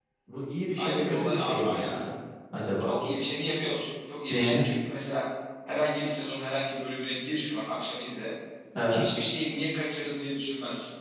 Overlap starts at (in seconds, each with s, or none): 0.8 s